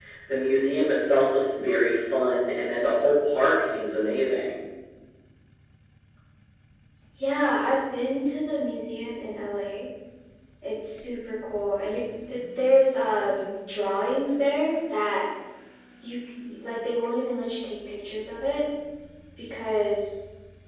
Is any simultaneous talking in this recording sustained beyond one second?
No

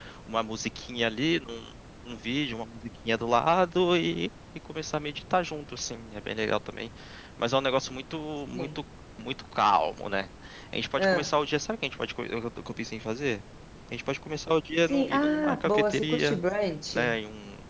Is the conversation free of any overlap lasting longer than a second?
No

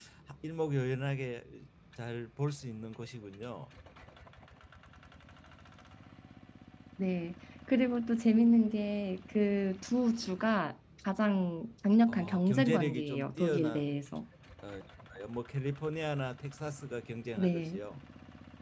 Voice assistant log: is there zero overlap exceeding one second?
No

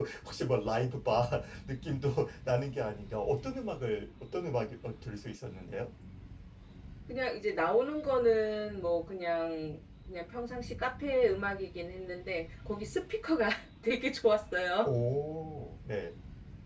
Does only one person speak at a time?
Yes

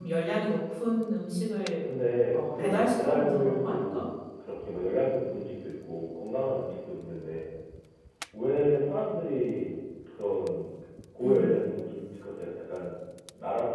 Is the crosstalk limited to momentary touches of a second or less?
No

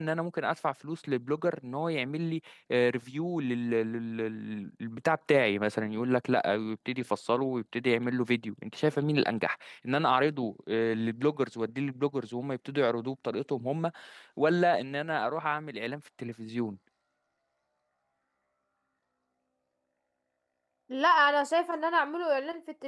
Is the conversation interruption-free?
Yes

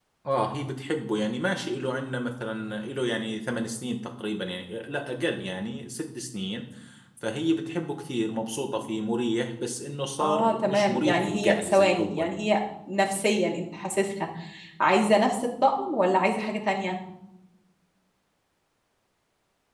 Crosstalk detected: Yes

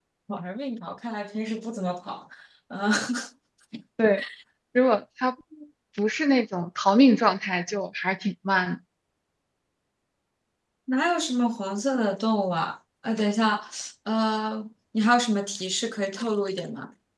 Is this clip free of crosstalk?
Yes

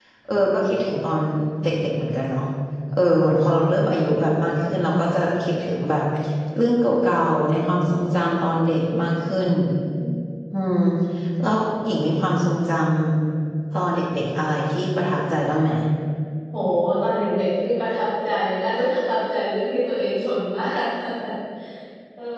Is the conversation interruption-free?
Yes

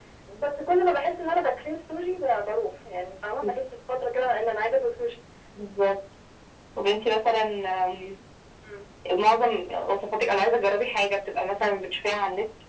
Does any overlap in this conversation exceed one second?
No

